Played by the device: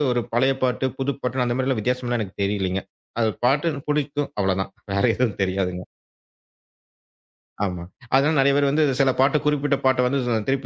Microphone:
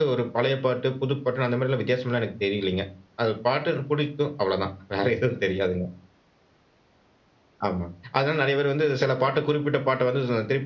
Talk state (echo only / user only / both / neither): echo only